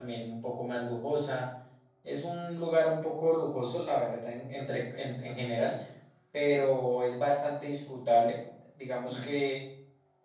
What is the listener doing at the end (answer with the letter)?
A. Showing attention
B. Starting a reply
A